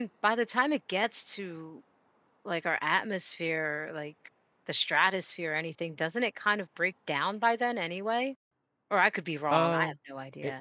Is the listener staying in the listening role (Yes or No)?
No